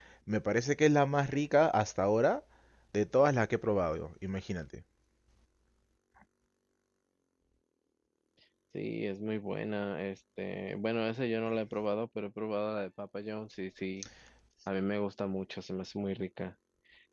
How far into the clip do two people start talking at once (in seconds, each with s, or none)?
none